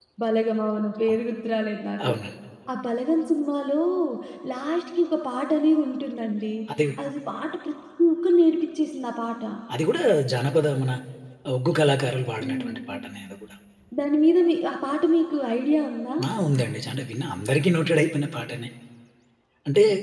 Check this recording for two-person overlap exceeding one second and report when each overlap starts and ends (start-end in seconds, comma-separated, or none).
none